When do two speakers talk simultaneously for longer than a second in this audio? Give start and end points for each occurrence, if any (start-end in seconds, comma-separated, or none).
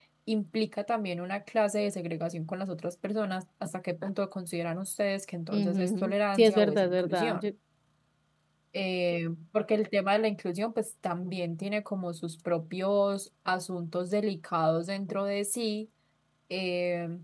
5.5-7.5